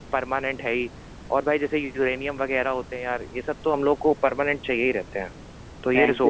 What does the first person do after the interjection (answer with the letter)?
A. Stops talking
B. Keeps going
A